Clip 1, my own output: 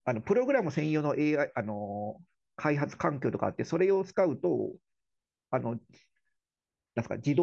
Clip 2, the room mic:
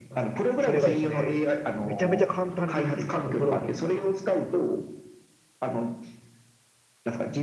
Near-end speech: present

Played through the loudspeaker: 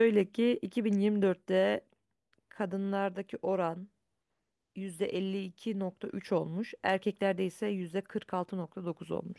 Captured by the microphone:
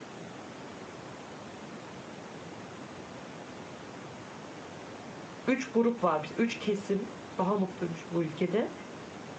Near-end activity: present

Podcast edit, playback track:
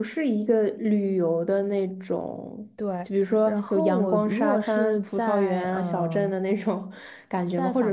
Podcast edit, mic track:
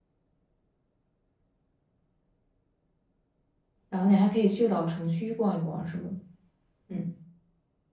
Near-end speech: present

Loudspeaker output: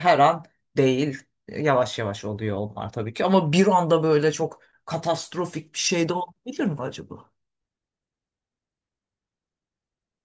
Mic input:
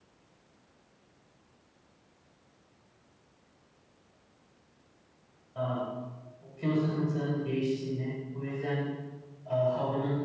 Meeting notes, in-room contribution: present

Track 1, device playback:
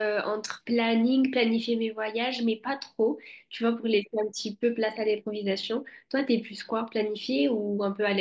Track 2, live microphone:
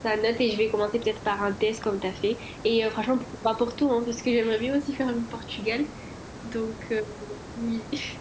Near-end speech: present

